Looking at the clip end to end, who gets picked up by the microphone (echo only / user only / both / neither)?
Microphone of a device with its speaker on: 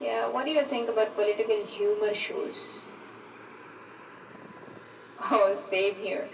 echo only